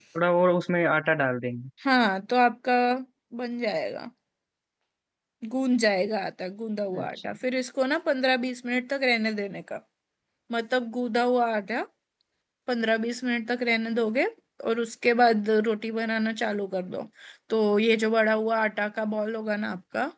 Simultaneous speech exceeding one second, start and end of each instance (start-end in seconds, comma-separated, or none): none